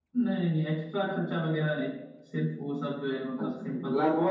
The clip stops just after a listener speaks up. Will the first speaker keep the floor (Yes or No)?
No